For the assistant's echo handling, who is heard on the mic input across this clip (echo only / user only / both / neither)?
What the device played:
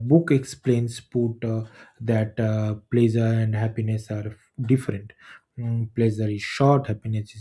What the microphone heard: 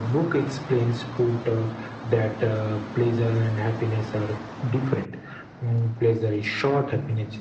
echo only